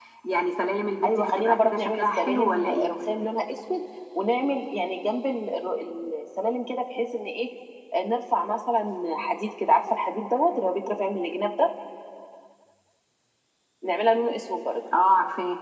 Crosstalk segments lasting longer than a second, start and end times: 1.0-2.9

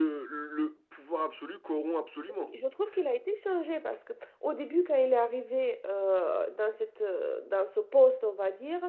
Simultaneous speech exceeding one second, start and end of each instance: none

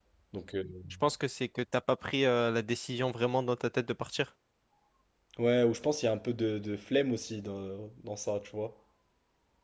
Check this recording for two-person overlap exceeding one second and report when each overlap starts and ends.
none

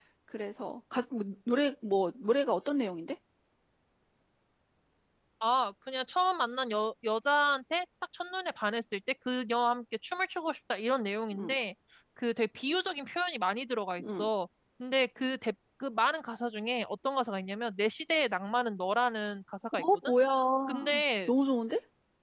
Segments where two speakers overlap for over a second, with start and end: none

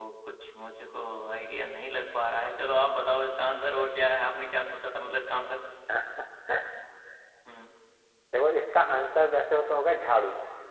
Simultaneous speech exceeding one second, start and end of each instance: none

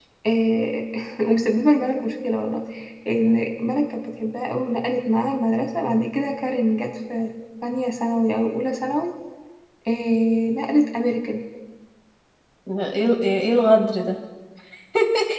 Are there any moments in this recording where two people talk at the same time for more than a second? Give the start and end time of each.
none

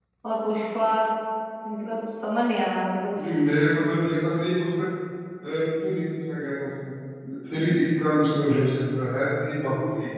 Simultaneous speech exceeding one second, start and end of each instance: none

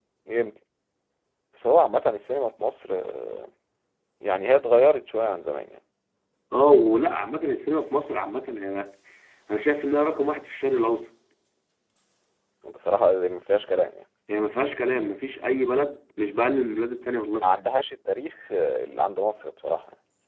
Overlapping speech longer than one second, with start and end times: none

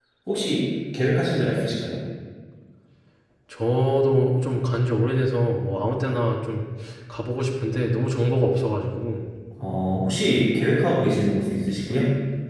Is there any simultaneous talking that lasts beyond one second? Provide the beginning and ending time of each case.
none

